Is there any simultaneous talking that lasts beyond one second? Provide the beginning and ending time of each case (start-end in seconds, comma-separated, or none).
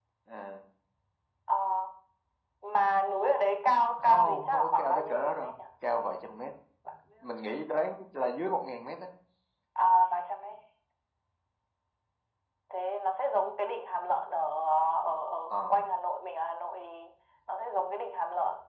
4.0-5.6